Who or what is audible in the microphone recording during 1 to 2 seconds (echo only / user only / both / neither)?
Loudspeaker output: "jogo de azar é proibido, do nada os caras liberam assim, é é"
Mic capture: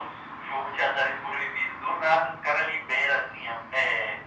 echo only